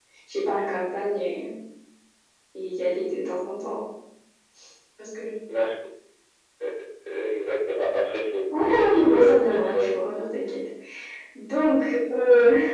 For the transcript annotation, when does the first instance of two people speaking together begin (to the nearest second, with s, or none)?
9 s